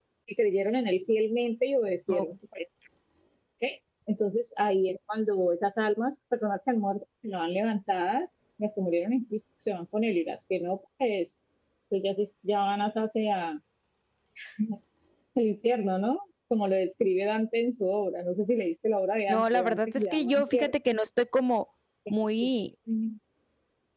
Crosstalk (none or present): present